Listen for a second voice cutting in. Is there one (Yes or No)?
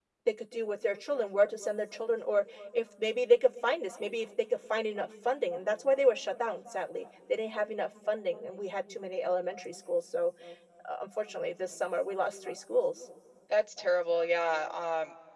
No